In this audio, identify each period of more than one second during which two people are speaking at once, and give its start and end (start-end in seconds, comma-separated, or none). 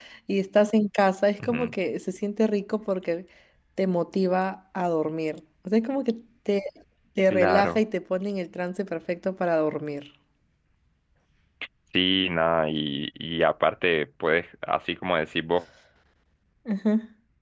none